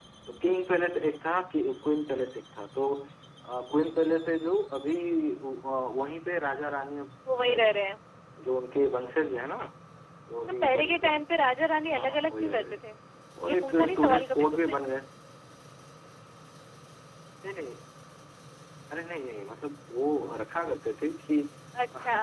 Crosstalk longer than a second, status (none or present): present